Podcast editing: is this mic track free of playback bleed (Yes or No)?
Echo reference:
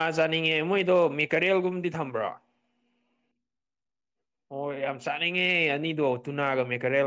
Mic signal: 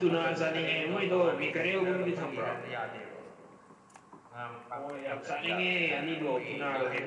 No